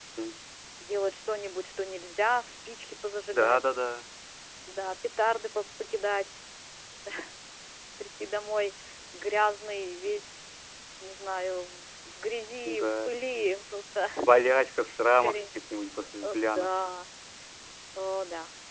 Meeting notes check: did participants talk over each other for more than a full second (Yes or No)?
No